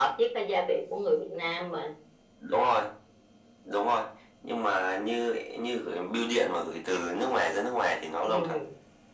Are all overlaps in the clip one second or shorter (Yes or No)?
Yes